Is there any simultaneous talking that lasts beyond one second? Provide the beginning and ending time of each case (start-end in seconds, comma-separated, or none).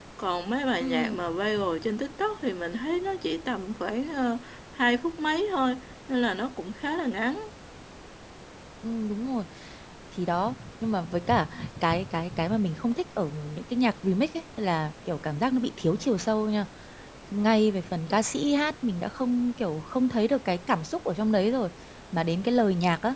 none